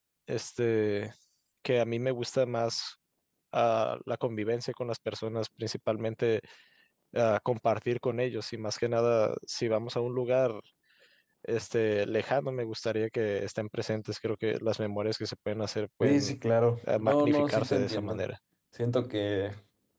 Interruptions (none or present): present